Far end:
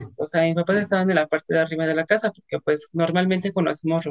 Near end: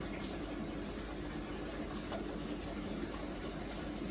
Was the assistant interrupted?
No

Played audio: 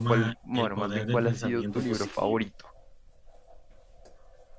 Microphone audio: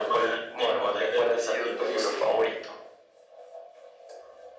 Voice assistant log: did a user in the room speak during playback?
No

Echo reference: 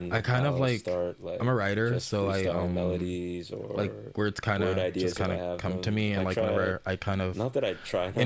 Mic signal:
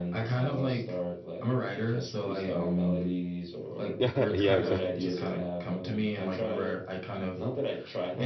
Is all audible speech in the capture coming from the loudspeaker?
No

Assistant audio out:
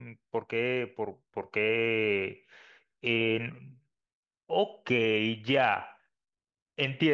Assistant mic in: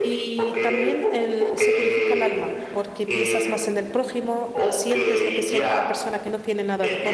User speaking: Yes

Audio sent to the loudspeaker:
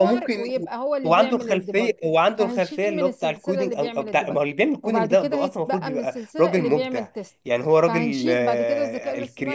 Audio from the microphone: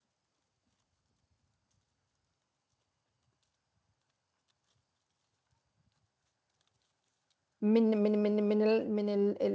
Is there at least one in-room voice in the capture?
Yes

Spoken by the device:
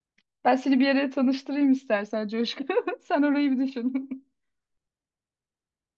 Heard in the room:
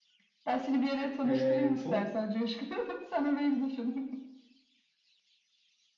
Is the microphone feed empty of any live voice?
No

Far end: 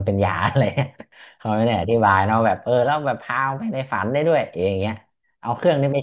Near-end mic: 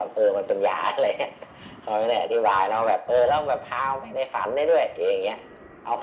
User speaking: No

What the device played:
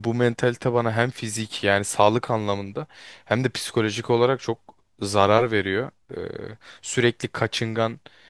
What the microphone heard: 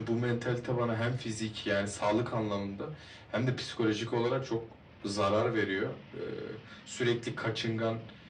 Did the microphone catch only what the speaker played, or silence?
Yes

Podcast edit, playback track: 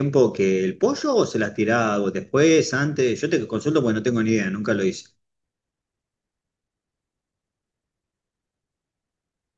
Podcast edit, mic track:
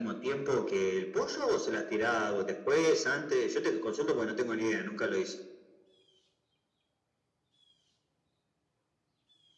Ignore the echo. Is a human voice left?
No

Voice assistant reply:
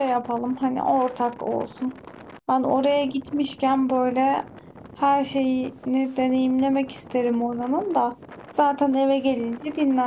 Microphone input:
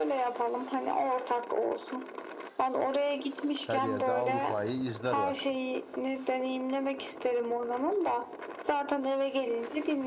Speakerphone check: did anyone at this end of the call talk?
Yes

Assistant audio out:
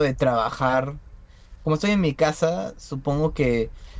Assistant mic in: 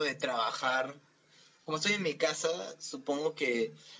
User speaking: No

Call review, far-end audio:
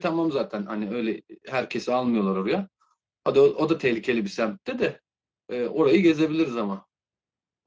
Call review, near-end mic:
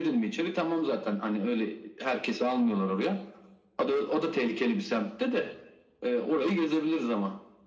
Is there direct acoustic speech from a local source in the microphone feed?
No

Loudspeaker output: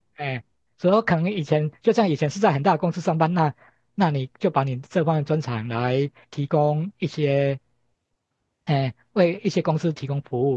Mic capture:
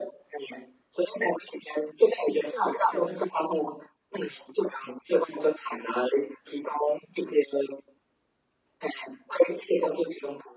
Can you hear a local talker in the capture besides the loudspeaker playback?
Yes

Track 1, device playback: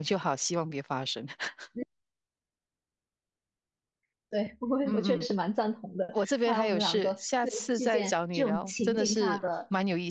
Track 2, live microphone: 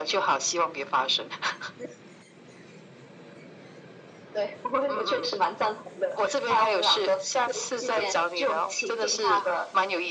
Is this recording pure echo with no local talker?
Yes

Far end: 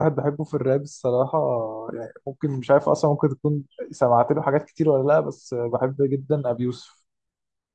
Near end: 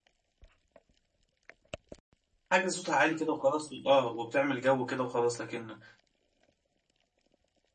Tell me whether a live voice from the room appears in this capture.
Yes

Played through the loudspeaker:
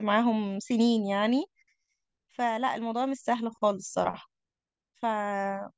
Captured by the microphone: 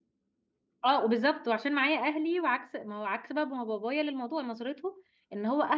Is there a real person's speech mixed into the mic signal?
Yes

